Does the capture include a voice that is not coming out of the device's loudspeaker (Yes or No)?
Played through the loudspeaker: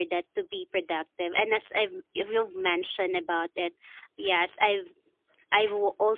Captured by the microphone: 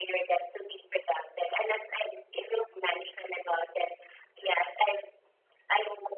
No